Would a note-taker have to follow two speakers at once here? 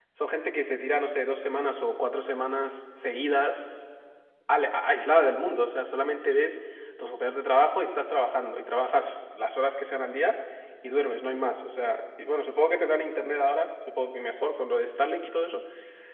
No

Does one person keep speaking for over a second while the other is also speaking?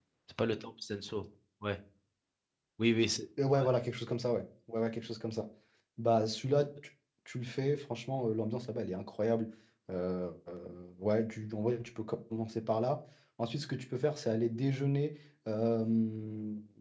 No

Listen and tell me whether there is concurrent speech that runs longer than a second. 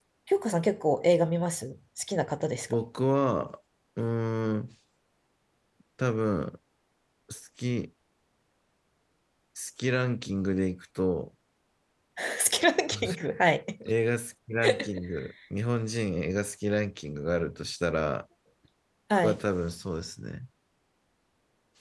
No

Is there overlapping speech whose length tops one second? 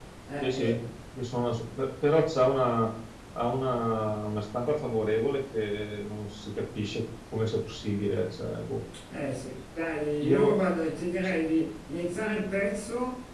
No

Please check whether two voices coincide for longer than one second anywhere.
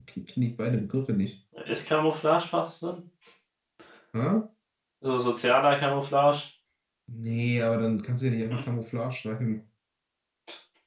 No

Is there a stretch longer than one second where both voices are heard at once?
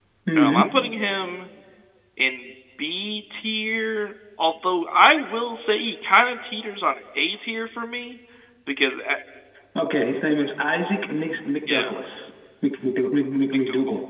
No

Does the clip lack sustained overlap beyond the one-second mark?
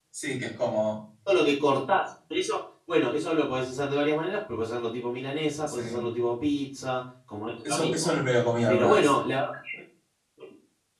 Yes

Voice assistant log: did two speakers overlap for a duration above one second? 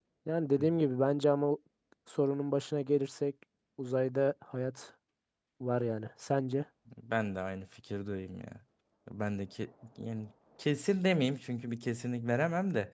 No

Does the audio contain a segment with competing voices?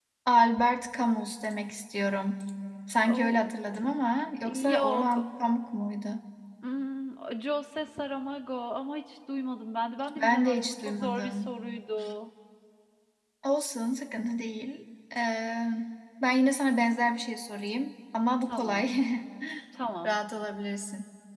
Yes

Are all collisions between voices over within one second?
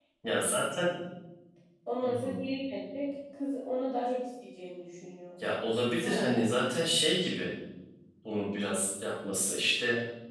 Yes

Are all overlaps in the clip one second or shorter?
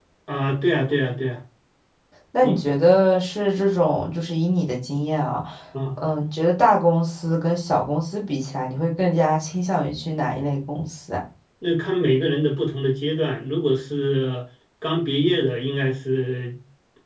Yes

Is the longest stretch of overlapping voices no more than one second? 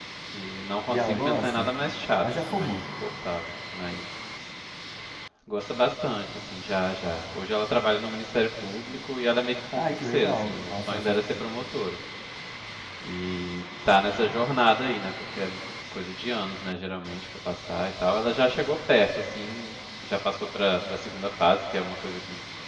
No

